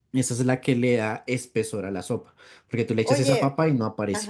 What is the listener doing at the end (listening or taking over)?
taking over